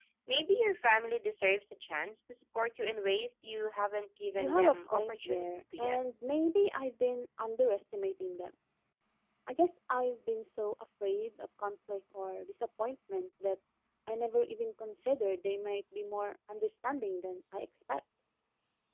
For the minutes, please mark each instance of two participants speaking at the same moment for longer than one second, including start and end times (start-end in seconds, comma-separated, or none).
4.4-6.0